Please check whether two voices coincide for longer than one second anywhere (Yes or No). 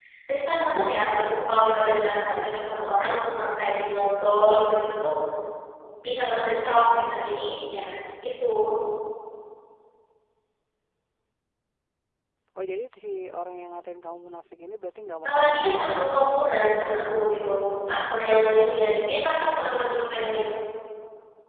Yes